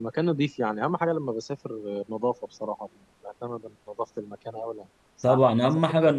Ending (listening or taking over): taking over